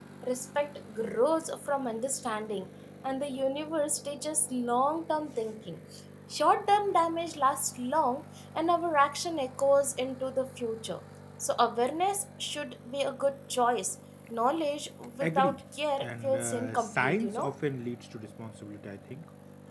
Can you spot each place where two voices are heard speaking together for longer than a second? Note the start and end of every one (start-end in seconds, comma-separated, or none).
16.0-17.5